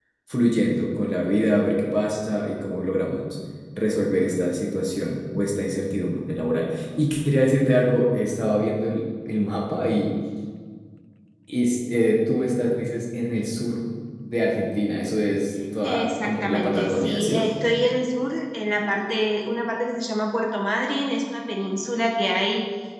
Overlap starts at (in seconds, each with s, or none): 15.8 s